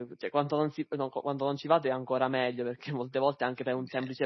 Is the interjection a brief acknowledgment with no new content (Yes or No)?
Yes